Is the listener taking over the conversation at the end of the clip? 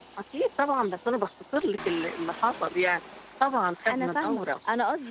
Yes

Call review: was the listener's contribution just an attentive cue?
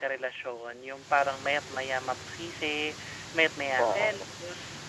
Yes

